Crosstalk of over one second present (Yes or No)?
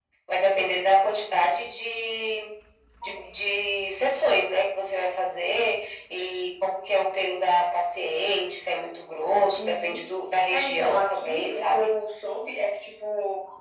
Yes